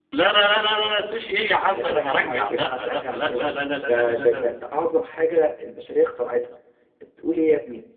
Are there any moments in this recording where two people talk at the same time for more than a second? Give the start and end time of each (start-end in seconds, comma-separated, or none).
1.7-4.5